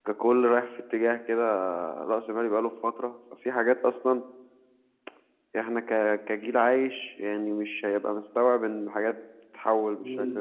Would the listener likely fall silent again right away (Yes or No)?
No